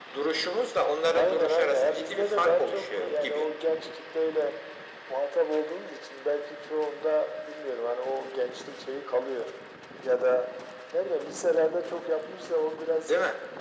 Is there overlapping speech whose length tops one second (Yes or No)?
Yes